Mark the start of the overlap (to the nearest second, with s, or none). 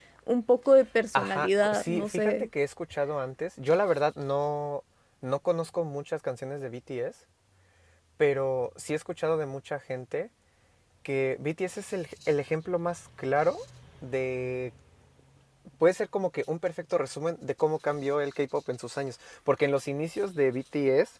1 s